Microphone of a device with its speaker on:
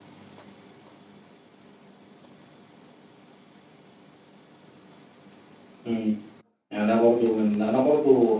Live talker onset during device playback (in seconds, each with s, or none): 5.8 s